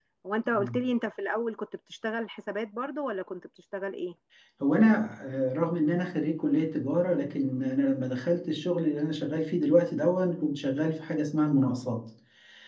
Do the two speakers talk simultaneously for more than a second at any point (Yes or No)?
No